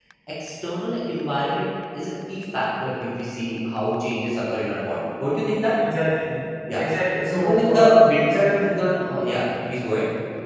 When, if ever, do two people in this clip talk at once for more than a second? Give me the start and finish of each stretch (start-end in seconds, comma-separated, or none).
7.3-8.8